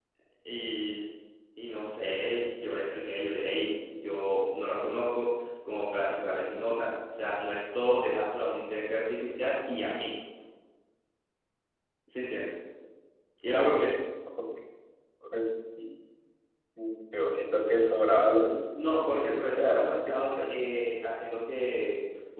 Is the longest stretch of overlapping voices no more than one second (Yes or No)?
No